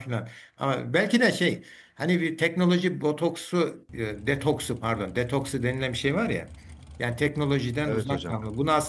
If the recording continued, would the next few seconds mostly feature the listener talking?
No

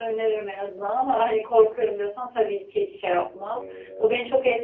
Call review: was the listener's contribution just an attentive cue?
Yes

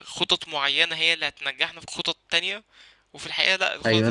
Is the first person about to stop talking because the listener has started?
Yes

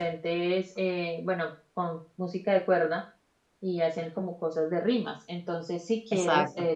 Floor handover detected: No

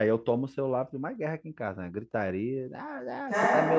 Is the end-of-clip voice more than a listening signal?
No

